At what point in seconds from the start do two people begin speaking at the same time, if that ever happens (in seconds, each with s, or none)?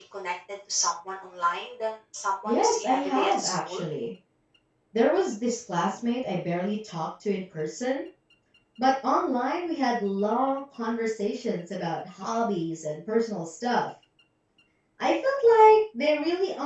2.4 s